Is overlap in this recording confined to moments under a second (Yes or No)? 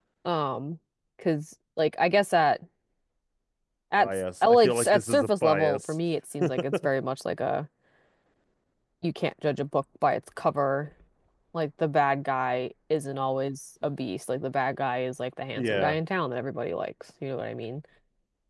No